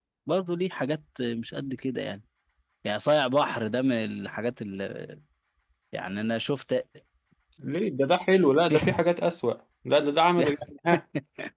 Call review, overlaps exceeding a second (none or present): none